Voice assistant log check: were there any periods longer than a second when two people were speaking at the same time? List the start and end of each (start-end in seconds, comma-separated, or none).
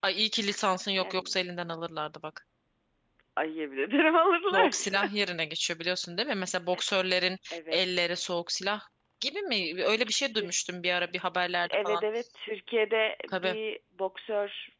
none